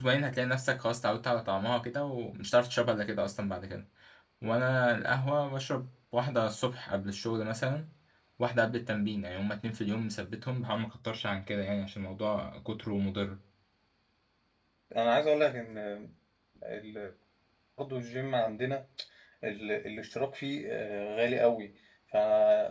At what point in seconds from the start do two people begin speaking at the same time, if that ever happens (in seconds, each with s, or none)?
none